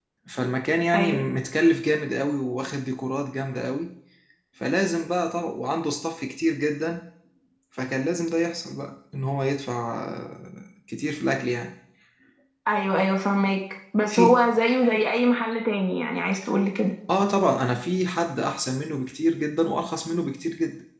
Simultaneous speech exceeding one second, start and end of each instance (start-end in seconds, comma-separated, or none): none